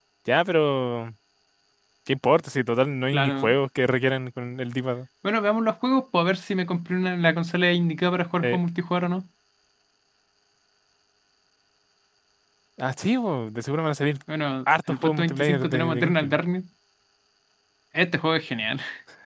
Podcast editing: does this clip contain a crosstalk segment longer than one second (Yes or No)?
Yes